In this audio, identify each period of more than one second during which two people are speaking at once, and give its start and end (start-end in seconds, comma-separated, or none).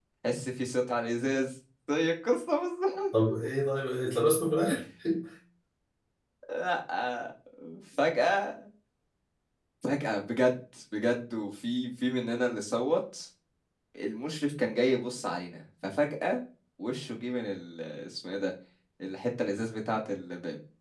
none